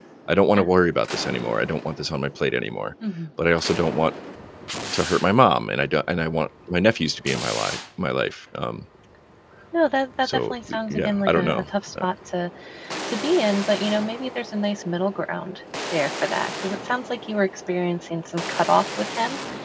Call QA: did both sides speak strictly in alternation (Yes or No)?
No